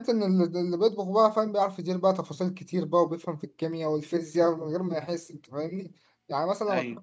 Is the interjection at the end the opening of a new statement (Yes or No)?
No